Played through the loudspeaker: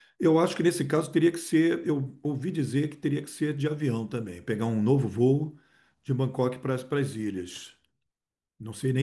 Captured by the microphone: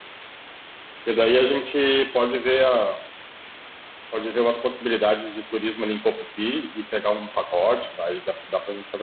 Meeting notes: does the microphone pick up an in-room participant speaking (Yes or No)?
Yes